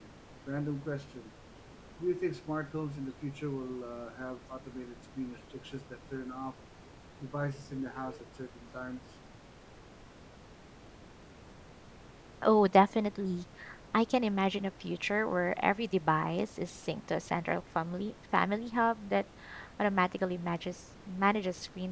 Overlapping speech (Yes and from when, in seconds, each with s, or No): No